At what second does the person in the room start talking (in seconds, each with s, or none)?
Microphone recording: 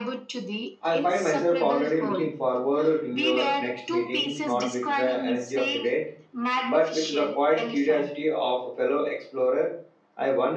0.8 s